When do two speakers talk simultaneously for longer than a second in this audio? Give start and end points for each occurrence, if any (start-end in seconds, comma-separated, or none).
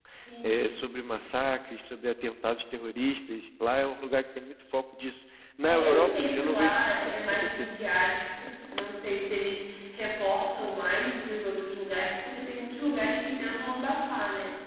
5.6-7.7